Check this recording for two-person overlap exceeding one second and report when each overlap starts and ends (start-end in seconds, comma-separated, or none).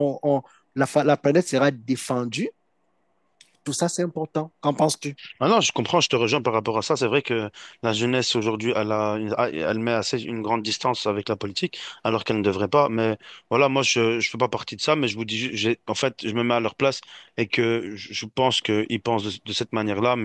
none